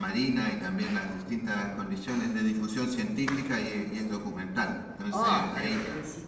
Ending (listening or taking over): taking over